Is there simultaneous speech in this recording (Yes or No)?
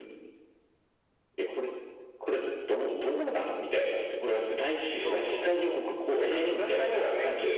Yes